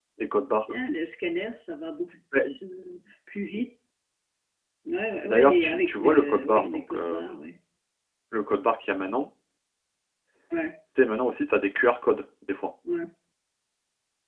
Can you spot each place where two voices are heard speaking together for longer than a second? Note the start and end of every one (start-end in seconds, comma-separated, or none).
5.2-7.3